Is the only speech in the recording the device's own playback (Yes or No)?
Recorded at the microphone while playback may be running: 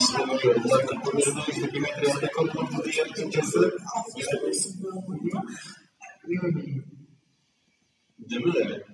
Yes